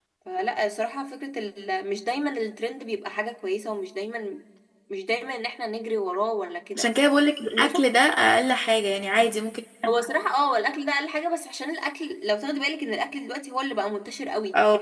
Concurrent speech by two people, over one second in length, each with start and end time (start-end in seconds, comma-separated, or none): none